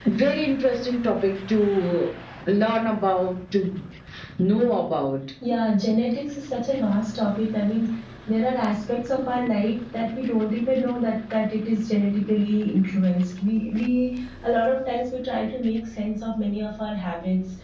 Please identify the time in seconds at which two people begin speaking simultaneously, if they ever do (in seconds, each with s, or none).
none